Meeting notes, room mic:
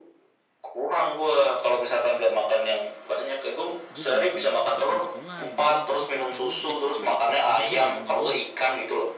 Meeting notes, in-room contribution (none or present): present